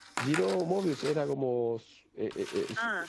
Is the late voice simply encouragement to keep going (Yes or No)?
No